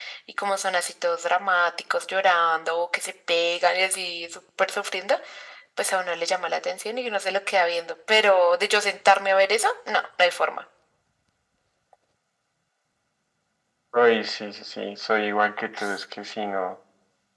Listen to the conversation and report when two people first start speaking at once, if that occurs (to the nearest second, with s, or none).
none